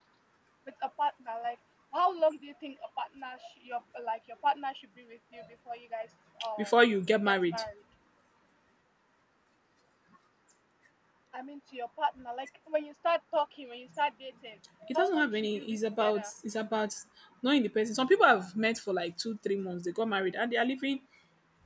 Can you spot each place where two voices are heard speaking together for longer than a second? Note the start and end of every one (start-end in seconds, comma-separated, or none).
14.9-16.3